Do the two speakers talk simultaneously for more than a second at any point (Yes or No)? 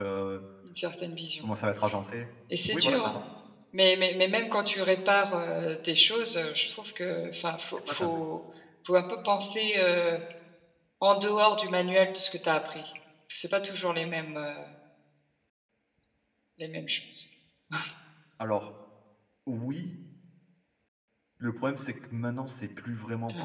No